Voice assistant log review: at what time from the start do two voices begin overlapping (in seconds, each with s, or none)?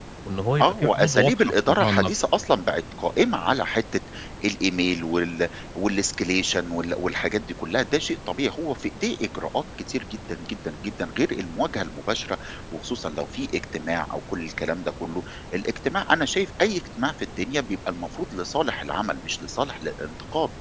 0.6 s